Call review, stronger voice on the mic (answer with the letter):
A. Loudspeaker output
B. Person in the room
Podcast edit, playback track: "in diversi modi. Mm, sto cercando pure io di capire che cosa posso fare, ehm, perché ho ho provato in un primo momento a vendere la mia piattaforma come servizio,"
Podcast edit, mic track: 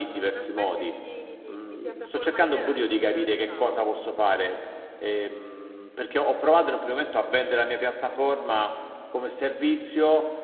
A